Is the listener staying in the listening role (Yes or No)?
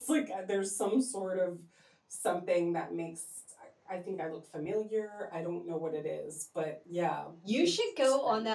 No